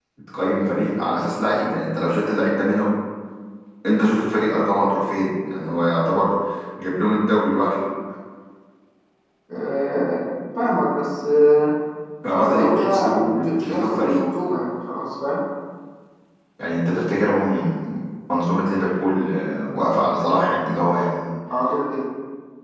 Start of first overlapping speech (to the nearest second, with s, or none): 12 s